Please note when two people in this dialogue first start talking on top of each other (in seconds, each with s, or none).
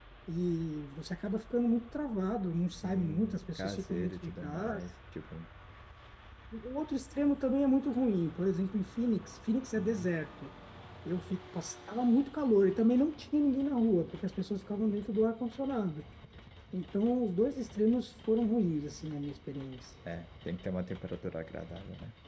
2.7 s